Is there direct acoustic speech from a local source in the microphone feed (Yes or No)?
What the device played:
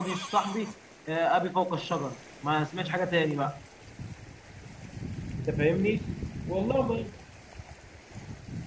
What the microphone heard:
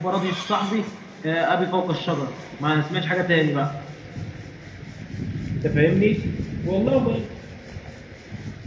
No